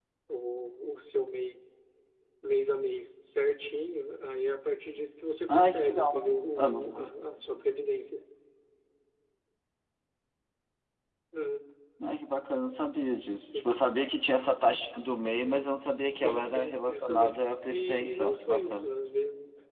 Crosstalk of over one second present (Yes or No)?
Yes